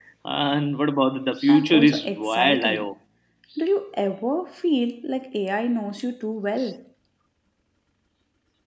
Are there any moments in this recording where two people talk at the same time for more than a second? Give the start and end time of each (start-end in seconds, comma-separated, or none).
1.5-2.9